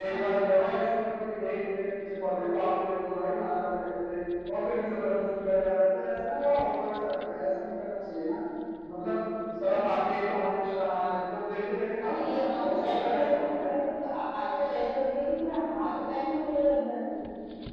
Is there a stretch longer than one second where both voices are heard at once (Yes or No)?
Yes